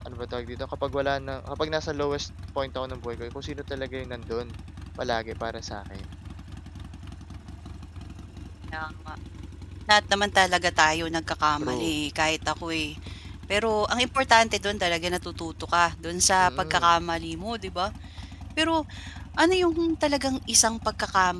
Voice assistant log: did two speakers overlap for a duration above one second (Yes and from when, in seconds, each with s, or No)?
No